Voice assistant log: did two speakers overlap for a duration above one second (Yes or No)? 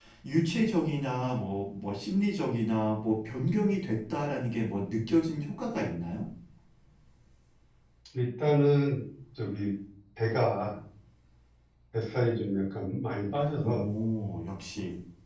No